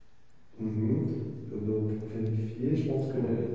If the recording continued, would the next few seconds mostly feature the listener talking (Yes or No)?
No